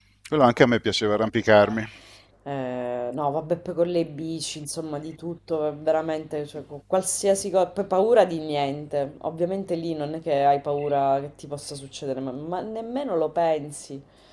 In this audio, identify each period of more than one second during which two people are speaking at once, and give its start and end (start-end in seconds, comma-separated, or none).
none